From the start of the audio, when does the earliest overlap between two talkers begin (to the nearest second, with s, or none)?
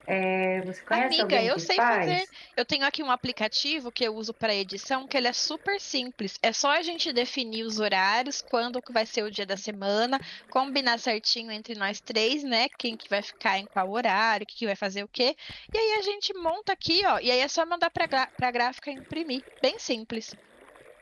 1 s